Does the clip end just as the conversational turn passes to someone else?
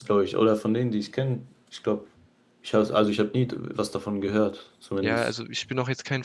Yes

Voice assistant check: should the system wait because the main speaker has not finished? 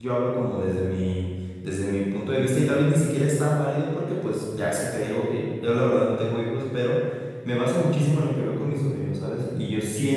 Yes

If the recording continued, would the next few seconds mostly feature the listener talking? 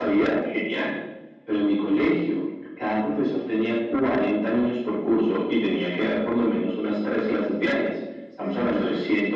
No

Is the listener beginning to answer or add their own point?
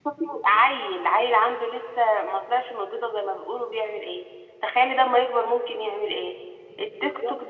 No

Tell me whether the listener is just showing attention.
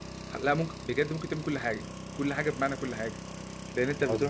Yes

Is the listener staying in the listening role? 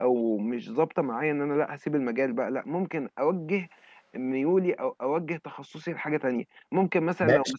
No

